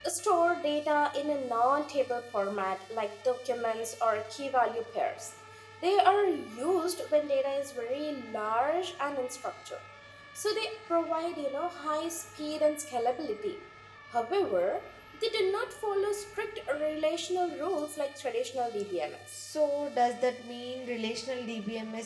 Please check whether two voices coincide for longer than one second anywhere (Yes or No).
No